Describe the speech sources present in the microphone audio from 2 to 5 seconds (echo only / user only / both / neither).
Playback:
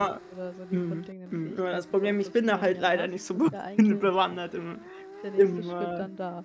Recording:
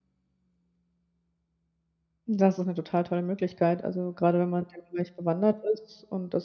user only